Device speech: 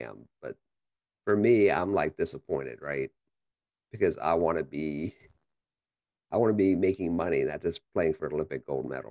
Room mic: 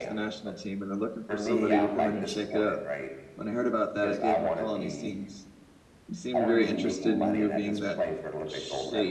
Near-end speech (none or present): present